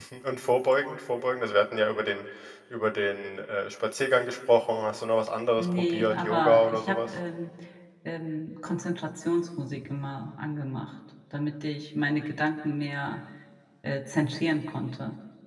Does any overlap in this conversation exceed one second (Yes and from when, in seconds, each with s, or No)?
Yes, from 5.6 s